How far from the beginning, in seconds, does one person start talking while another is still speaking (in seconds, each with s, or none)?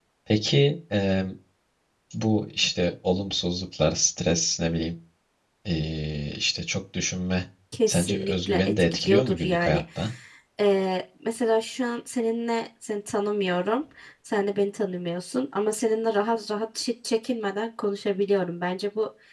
7.9 s